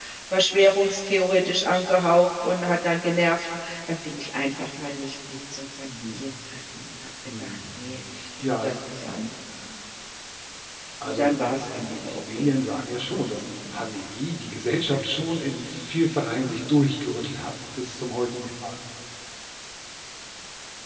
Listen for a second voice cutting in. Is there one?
Yes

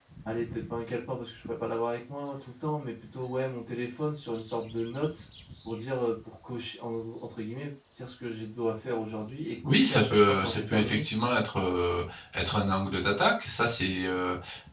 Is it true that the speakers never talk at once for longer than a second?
No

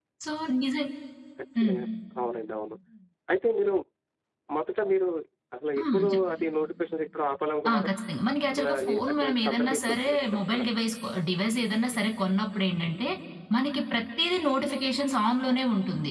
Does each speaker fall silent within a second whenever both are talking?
No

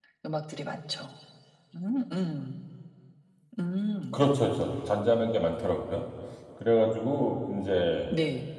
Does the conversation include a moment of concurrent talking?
No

